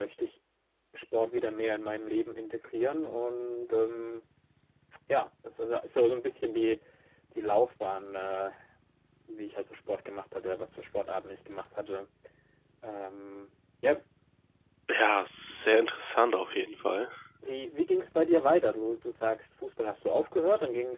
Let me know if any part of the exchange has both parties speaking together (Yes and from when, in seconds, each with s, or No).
No